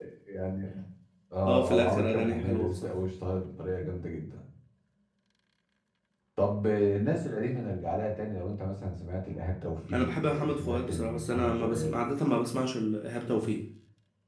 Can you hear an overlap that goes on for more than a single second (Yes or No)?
Yes